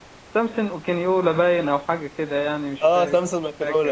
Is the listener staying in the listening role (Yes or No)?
No